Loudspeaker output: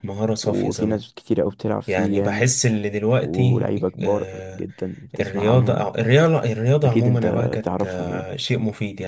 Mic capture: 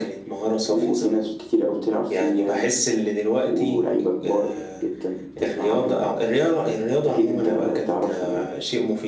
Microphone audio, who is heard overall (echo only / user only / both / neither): echo only